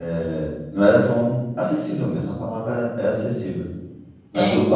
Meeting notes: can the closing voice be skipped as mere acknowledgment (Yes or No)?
Yes